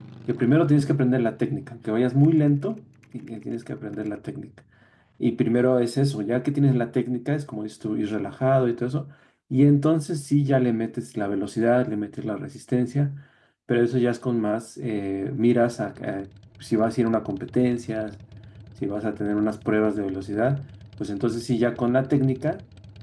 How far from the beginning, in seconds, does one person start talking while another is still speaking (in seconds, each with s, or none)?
none